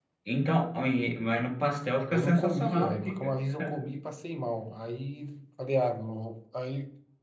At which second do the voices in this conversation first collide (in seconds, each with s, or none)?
2.1 s